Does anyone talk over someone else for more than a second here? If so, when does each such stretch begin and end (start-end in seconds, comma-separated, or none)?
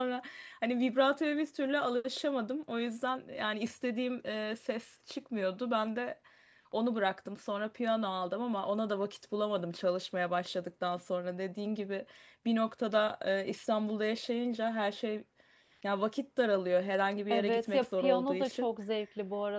17.3-18.7